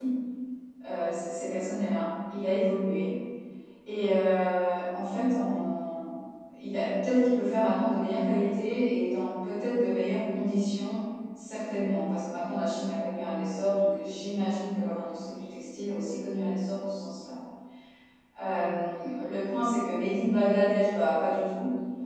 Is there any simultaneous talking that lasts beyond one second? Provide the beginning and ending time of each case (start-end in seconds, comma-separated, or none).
none